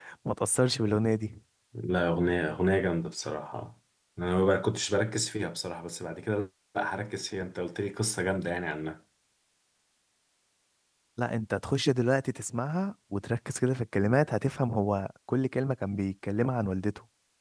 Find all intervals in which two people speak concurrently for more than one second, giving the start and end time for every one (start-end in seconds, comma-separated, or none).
none